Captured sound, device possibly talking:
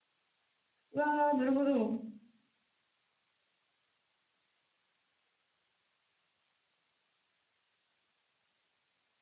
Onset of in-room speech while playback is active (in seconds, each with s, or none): 0.9 s